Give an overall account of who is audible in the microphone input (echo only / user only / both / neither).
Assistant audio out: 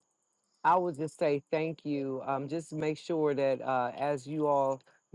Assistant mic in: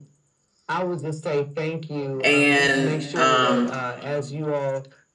both